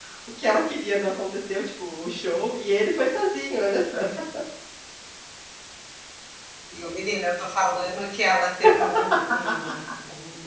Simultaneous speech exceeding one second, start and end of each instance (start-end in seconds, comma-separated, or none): none